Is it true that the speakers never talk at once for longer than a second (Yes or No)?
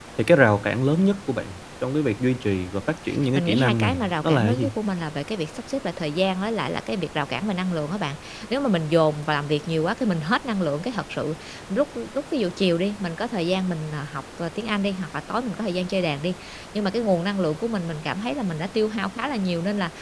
No